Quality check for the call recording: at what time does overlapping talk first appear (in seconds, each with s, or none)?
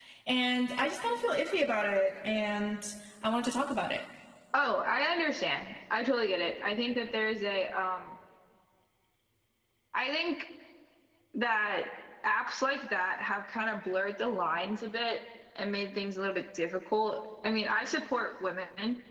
none